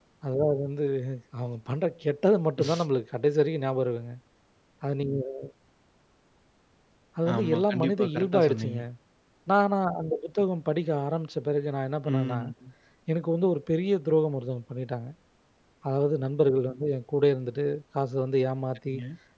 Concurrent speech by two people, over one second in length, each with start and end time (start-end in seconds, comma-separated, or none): 7.3-8.8